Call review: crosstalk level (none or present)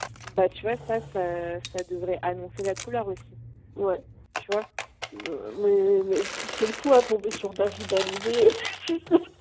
none